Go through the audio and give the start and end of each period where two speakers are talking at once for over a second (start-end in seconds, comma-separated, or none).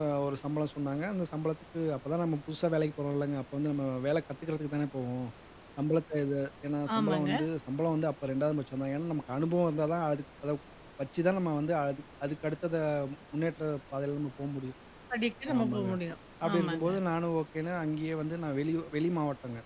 none